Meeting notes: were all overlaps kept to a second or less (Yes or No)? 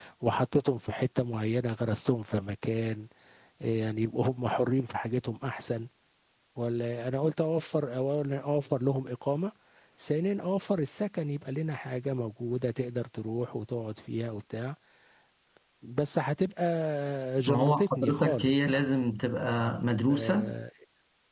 No